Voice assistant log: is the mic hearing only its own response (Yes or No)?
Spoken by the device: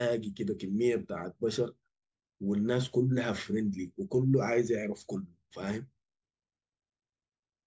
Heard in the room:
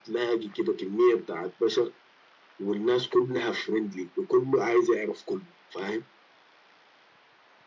Yes